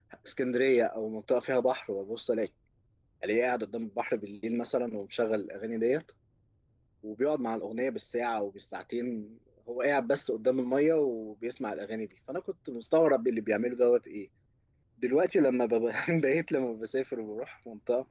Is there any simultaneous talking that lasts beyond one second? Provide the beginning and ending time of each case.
none

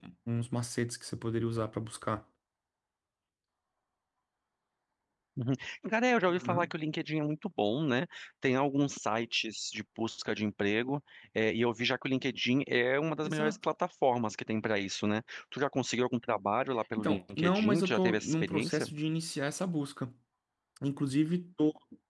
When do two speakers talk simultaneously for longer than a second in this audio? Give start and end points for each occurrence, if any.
17.0-18.9

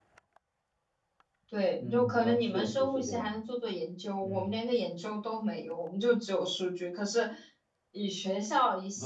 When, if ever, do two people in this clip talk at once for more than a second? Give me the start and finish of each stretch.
1.8-3.3

